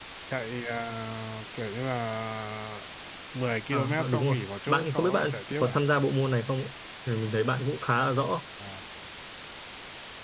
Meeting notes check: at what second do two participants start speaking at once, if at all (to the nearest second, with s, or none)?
4 s